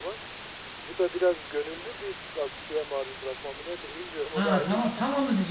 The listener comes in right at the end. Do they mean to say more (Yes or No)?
Yes